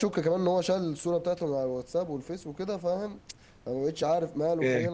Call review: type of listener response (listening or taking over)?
listening